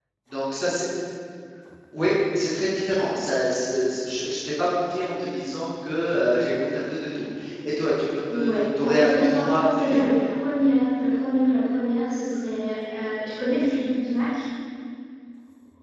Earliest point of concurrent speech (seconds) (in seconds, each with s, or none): 8.3 s